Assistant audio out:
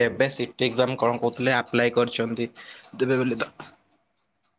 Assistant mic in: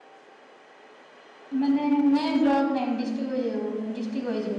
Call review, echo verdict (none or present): none